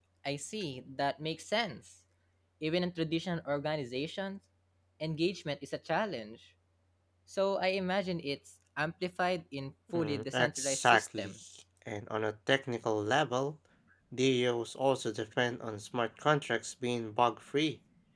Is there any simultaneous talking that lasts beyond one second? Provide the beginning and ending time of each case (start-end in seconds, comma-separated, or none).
9.9-11.3